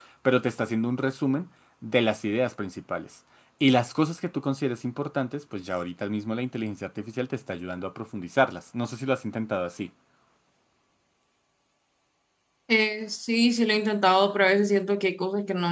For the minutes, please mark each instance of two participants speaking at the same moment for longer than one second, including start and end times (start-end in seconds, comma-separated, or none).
none